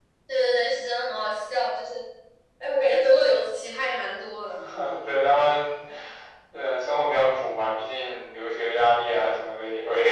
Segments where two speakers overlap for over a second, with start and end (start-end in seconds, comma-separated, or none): none